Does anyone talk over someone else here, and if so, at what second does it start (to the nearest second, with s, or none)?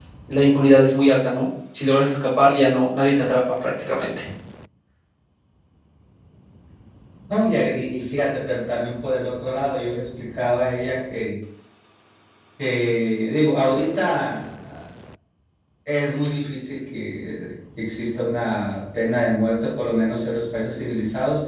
none